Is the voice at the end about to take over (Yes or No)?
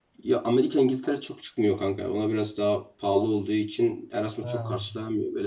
No